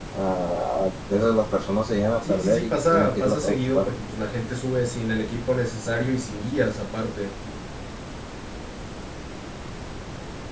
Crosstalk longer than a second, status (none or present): present